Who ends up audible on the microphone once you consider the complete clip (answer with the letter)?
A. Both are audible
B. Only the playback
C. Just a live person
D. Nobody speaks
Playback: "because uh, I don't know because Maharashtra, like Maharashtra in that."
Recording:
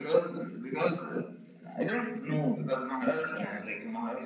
A